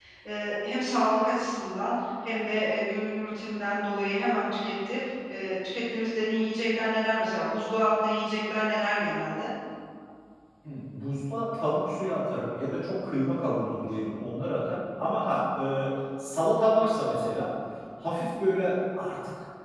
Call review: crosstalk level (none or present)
none